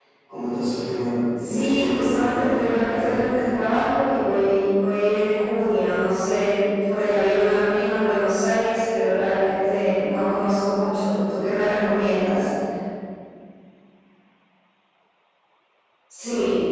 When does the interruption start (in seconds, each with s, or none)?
1.4 s